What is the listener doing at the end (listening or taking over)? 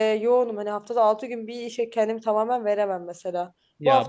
listening